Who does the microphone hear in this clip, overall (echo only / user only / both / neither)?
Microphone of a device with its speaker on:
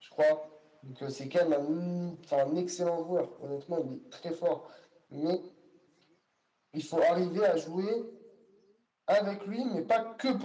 echo only